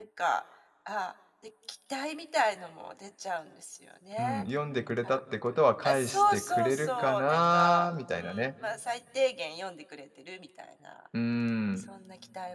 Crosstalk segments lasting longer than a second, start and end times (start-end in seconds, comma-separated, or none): 5.8-8.5